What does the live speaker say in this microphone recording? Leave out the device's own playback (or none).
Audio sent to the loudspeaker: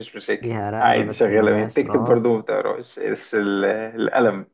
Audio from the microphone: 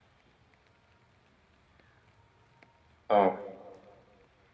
اه